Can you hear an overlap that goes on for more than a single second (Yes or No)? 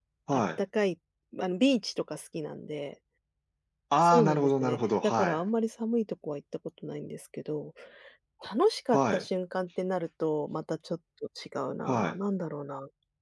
Yes